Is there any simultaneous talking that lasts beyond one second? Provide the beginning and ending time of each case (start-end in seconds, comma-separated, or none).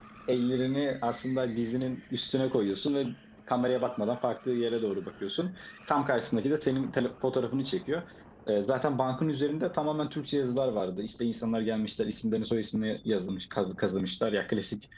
none